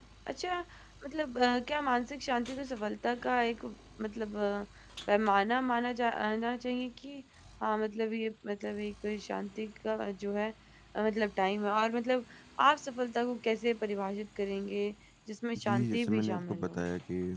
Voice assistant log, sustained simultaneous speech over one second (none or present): present